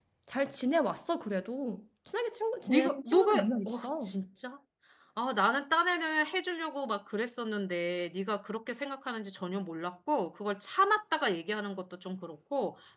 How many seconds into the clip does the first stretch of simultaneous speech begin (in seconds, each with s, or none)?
2.7 s